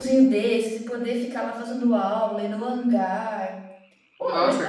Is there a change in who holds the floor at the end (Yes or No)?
Yes